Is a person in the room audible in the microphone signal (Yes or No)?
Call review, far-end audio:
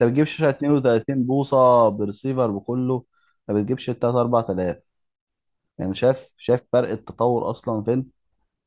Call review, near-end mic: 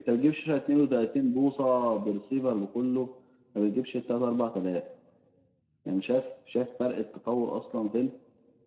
No